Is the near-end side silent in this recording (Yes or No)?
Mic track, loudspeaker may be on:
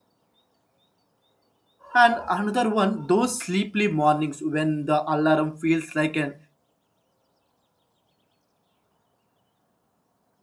No